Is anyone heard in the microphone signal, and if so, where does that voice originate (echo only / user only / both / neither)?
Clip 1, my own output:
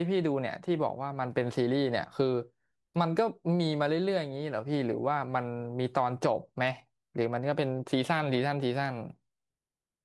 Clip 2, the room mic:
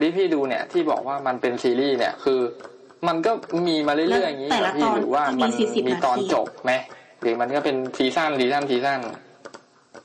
both